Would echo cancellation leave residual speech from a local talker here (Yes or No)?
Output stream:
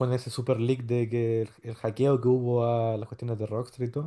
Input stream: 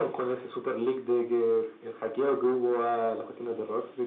No